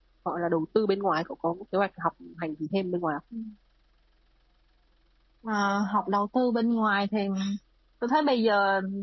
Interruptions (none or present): none